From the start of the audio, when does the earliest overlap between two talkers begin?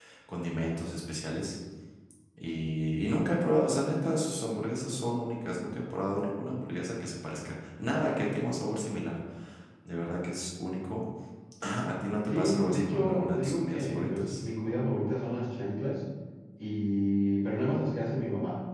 12.3 s

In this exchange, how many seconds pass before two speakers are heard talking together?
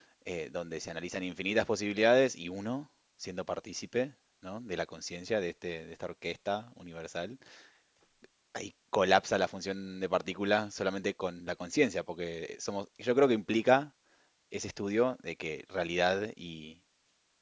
none

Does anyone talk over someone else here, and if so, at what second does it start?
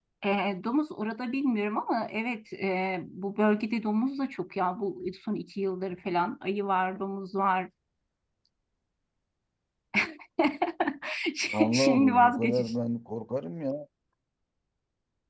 11.5 s

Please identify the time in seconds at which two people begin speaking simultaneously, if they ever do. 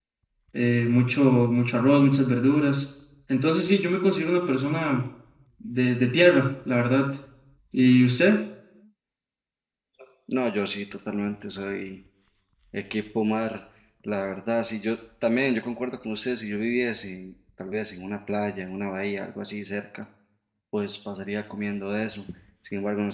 none

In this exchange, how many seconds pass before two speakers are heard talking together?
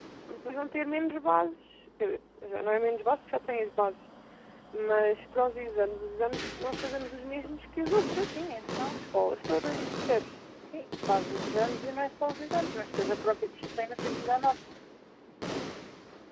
none

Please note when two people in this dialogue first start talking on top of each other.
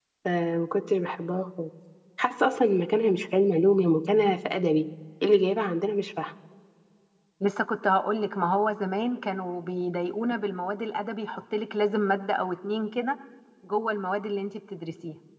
none

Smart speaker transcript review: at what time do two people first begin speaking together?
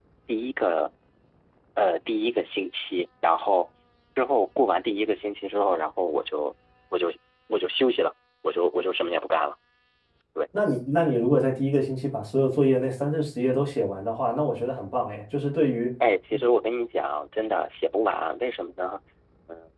none

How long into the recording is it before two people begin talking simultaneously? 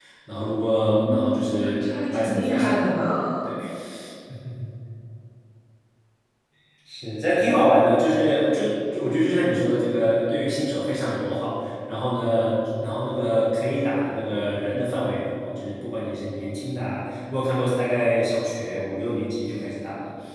0.8 s

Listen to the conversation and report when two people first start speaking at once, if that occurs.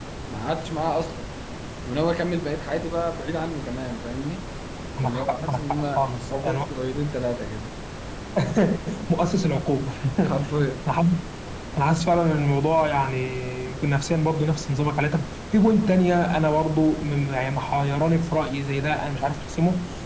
5.0 s

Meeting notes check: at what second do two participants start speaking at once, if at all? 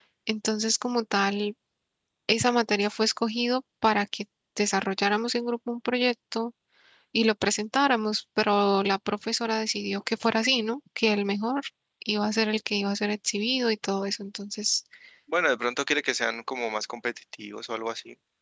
none

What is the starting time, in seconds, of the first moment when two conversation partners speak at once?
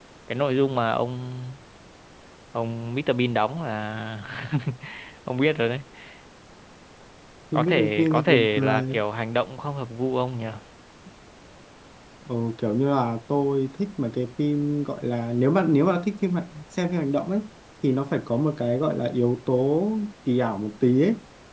7.5 s

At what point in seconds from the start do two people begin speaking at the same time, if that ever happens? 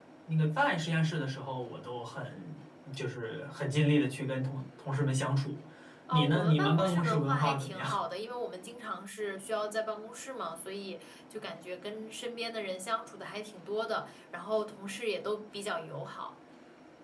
6.1 s

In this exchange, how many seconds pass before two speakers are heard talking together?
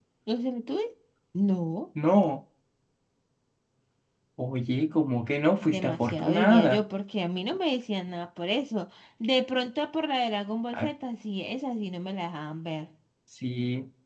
5.6 s

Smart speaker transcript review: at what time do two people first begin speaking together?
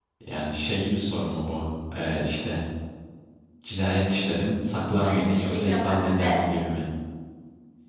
5.0 s

